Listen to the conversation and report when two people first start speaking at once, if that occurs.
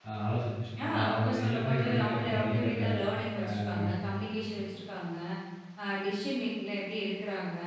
0.8 s

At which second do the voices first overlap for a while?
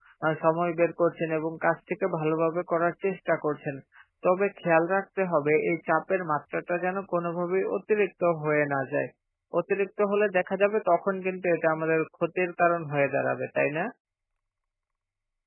none

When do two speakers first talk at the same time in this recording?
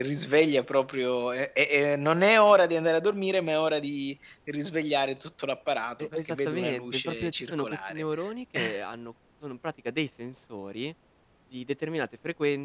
6.0 s

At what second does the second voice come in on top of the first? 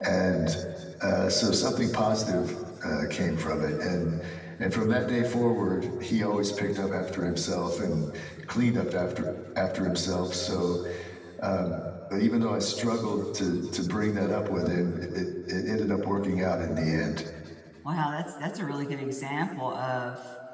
none

